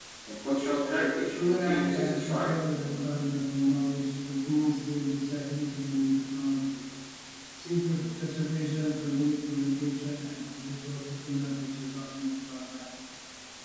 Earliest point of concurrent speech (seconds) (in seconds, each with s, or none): 1.3 s